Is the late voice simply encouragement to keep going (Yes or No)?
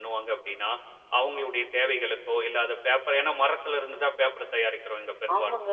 No